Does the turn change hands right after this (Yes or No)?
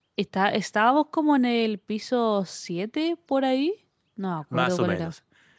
Yes